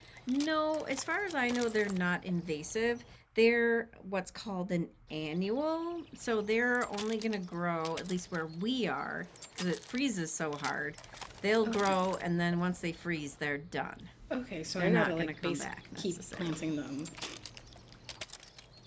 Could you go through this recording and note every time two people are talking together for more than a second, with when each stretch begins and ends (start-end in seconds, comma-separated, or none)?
14.8-16.7